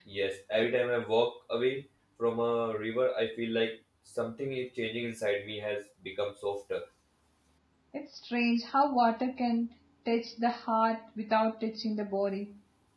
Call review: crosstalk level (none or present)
none